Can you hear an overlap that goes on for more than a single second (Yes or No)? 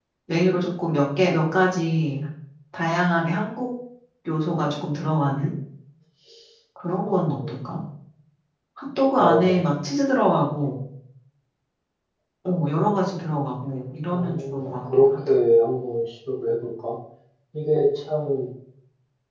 Yes